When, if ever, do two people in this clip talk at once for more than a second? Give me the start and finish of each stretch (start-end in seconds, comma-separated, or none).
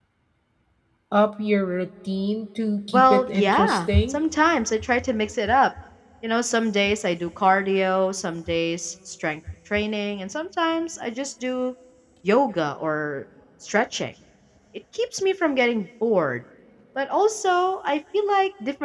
2.9-4.2